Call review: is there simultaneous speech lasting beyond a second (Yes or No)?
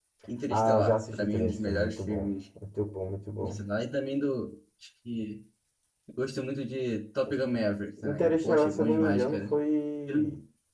Yes